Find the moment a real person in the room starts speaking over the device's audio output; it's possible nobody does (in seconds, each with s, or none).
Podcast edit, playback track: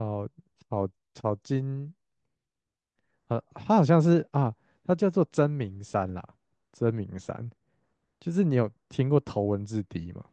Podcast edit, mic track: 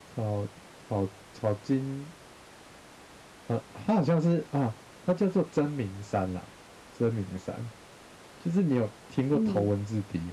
9.3 s